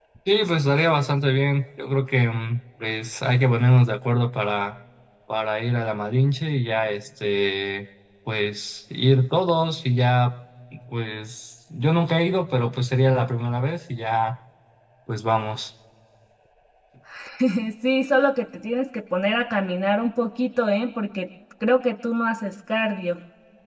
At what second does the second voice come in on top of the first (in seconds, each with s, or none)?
none